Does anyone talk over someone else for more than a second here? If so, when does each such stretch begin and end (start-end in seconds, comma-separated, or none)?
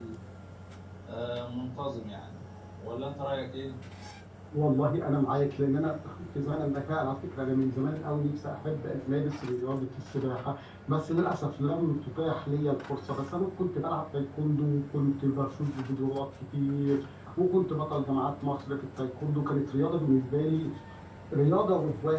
none